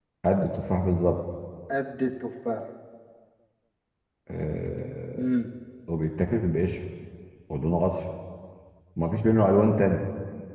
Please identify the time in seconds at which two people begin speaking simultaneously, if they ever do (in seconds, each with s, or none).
none